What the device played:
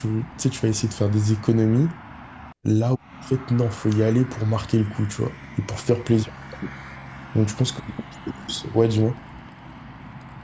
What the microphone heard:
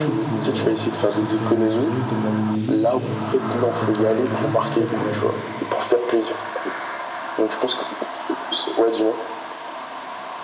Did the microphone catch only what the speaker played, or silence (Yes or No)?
No